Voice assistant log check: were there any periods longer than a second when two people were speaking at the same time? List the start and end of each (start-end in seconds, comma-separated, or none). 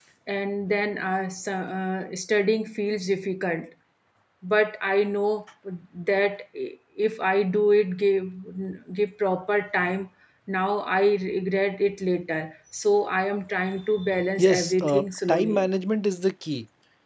14.4-15.7